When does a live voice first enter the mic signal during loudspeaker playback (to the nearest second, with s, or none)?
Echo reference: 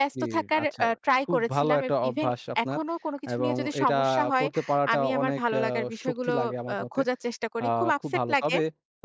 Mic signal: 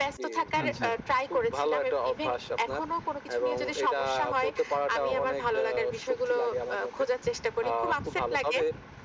1 s